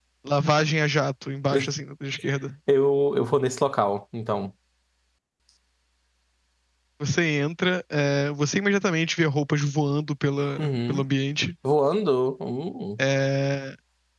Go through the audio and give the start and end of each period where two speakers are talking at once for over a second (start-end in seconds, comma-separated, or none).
none